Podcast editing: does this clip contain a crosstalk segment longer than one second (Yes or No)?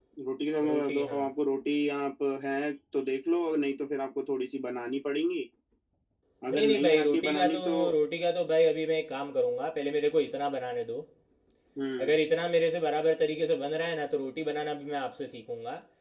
Yes